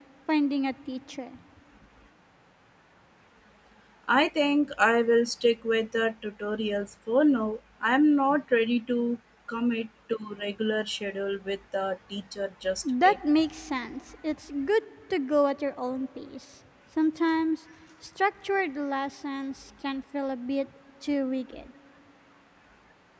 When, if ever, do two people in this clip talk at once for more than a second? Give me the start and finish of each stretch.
none

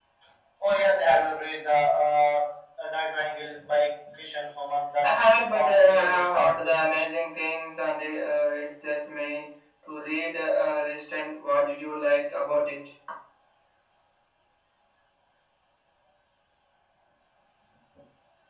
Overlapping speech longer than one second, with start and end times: 5.0-7.1

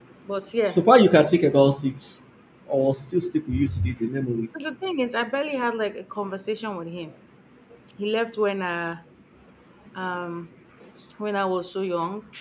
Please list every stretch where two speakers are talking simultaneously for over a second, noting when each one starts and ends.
none

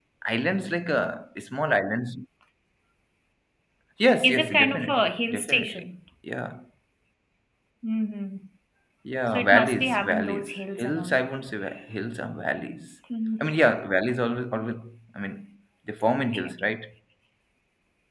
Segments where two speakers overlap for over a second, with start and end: 4.2-5.9, 9.3-11.2

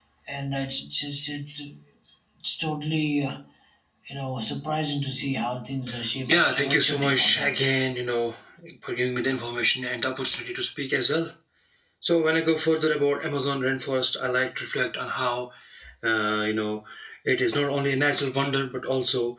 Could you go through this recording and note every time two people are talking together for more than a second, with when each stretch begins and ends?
6.3-7.7

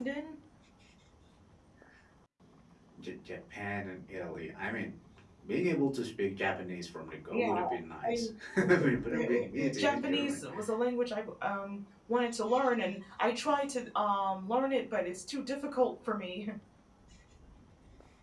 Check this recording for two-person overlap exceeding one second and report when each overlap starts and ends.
8.8-10.4

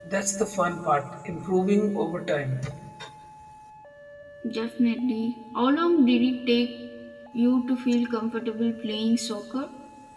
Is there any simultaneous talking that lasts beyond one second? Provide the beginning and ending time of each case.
none

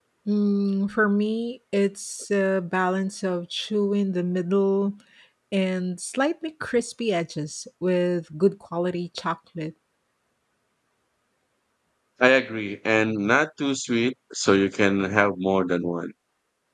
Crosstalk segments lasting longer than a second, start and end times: none

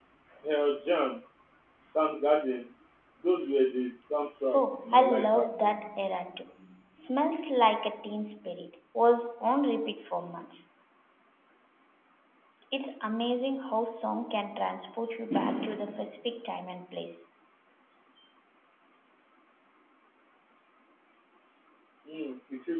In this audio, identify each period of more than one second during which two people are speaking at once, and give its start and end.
4.5-5.8

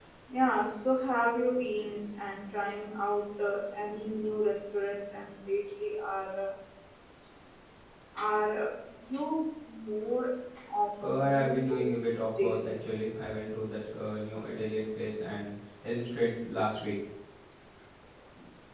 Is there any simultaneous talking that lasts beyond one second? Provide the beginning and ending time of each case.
11.0-12.7

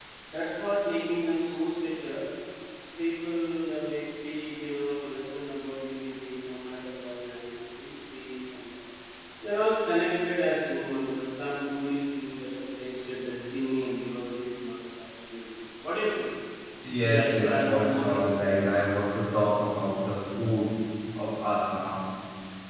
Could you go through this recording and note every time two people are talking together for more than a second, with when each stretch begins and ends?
17.0-18.2

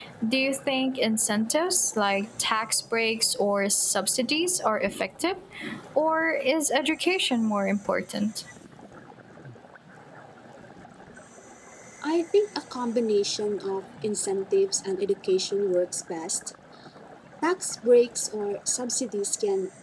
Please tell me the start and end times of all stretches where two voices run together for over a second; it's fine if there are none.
none

